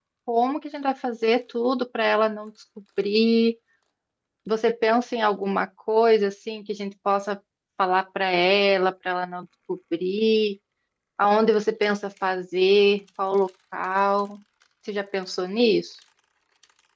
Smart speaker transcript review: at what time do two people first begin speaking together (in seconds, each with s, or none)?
none